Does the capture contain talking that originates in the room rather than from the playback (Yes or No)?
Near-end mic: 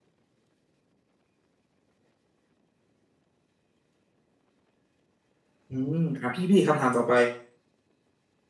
Yes